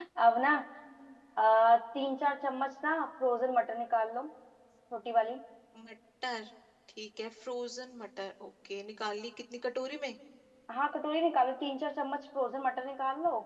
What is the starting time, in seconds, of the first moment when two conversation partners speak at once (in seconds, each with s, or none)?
none